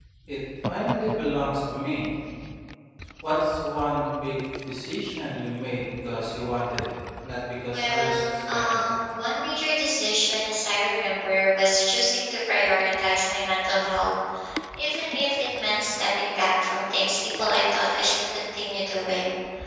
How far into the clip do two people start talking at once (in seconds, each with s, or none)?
7.7 s